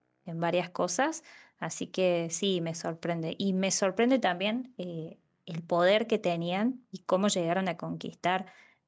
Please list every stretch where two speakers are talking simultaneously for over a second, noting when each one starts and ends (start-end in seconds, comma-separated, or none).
none